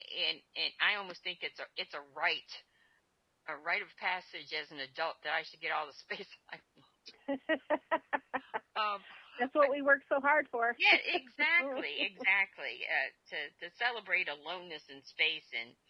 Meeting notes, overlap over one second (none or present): none